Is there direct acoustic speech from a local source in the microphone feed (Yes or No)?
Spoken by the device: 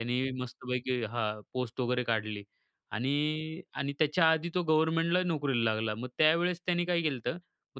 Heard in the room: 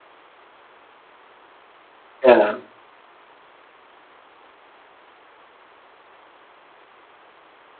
Yes